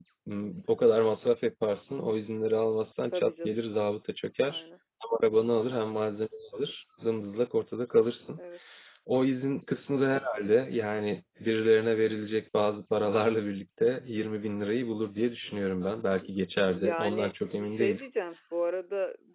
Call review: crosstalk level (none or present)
present